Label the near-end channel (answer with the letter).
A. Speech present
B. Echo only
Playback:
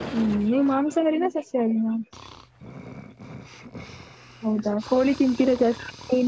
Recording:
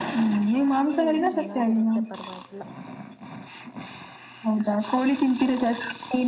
A